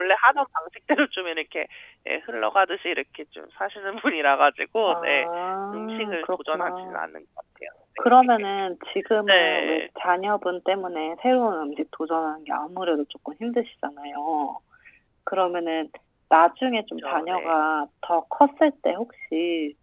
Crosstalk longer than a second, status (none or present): present